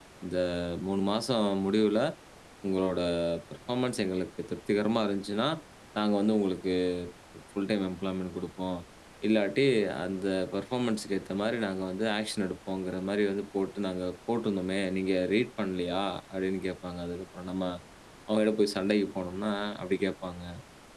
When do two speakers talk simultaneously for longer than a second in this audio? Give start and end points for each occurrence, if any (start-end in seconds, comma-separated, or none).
none